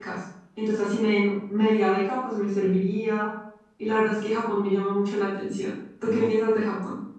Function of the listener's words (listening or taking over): taking over